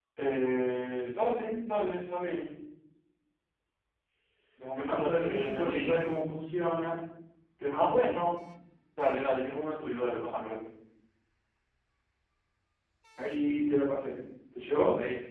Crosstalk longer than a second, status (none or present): present